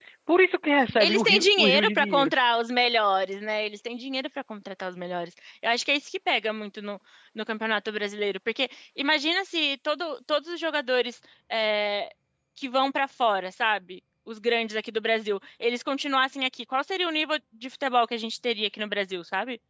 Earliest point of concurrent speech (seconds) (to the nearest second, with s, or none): 1 s